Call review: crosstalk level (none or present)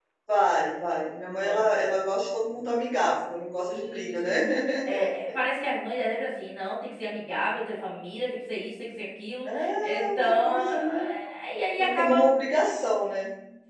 present